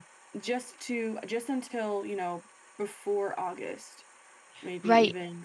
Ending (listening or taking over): taking over